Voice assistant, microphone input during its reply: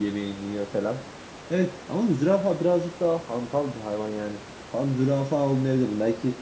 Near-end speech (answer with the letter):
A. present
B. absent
A